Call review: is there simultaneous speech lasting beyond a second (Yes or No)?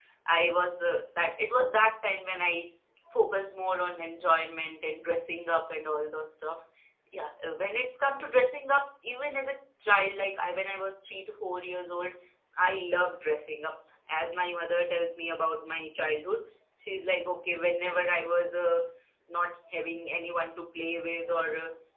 No